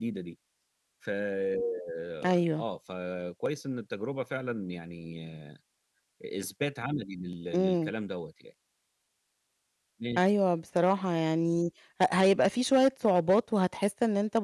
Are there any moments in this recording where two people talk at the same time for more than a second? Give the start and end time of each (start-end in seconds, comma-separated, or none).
none